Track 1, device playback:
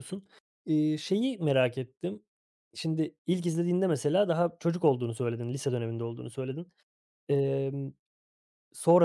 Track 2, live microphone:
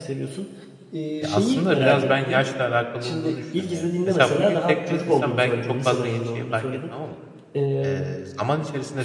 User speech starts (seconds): 1.2 s

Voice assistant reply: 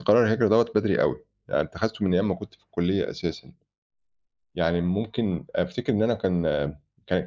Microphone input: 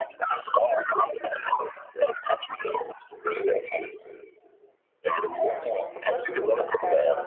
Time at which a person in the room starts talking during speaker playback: 5.4 s

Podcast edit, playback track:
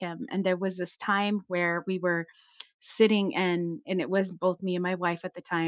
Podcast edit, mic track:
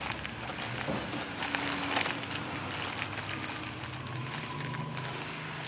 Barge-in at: none

